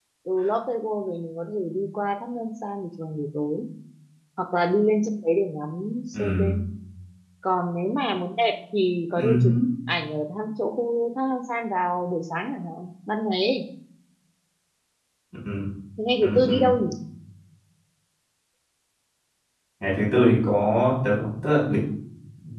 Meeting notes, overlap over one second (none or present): none